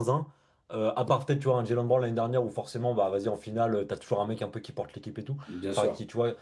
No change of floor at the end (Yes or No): Yes